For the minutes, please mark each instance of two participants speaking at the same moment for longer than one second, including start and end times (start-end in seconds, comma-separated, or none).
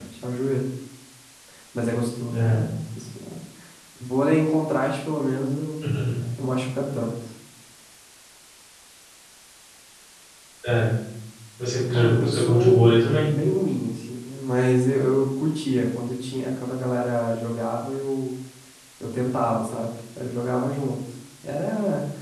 11.9-13.3